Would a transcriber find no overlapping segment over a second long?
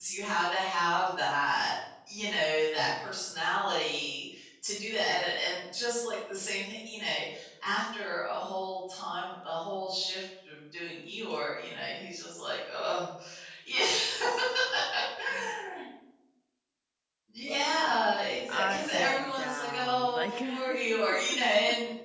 No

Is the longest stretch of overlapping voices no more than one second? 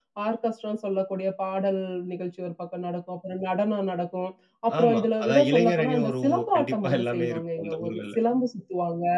No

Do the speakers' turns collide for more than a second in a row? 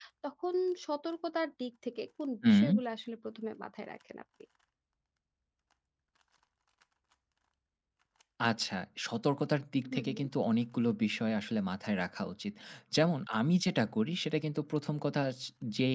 No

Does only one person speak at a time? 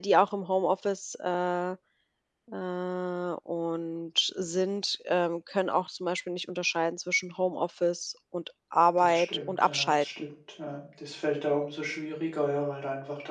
No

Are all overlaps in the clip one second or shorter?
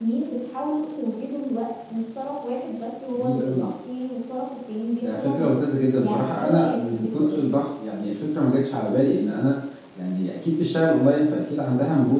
No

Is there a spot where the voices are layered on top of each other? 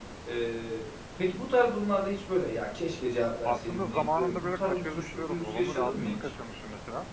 Yes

